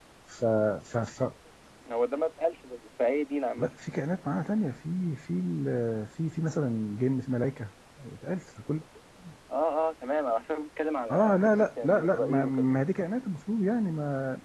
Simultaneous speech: Yes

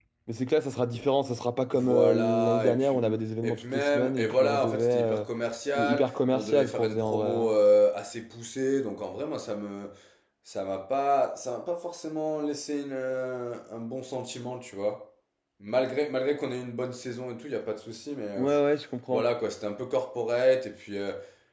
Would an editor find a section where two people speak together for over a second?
Yes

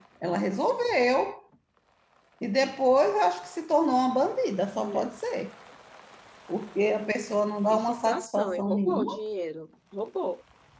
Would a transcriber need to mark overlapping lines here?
Yes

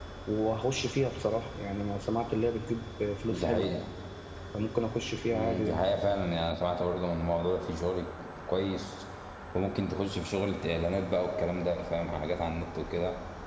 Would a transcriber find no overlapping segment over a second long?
Yes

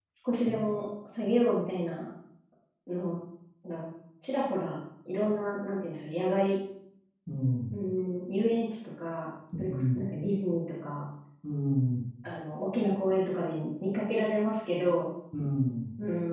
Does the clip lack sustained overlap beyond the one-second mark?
Yes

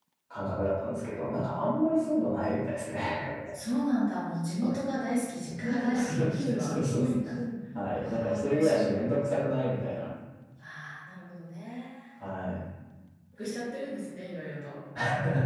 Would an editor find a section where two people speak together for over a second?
Yes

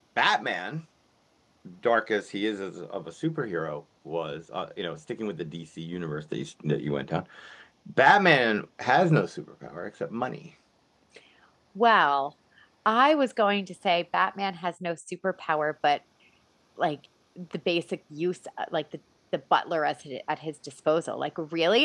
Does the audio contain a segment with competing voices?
No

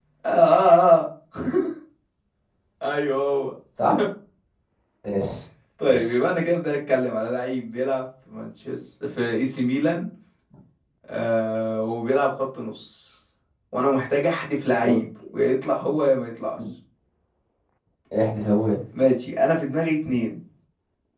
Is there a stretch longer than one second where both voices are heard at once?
No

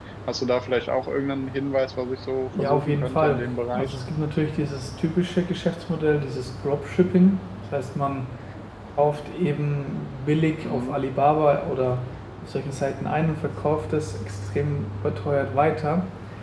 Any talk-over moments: Yes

